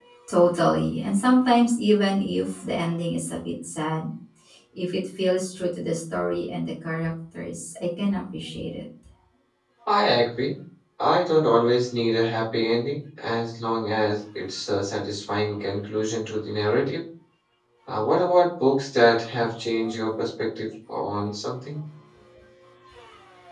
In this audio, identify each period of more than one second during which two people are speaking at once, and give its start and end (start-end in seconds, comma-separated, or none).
none